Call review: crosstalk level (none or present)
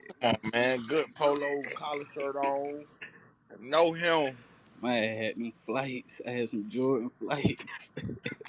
none